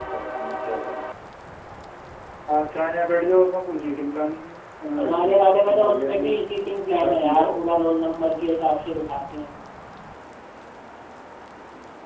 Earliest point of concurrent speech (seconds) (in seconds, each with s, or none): 5.0 s